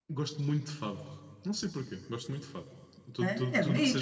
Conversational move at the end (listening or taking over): taking over